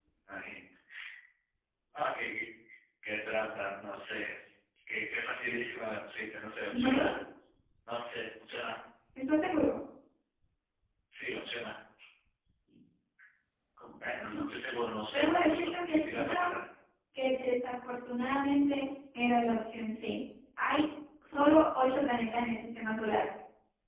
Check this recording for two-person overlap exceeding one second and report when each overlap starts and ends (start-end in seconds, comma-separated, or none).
15.1-16.5